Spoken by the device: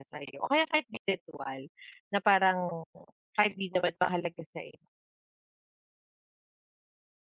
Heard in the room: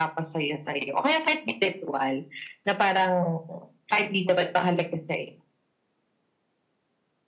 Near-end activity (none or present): none